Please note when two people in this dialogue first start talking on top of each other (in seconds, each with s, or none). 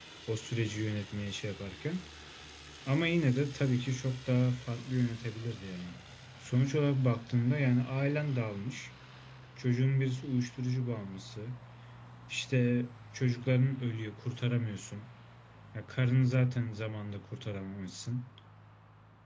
none